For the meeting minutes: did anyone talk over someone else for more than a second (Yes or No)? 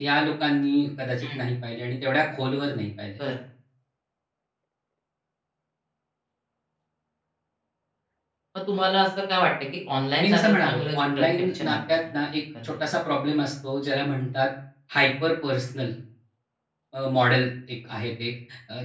Yes